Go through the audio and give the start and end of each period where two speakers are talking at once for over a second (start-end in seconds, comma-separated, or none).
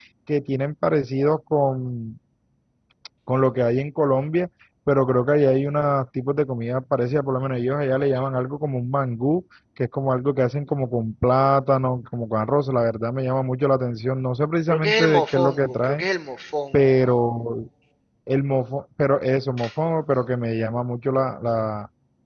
14.7-16.1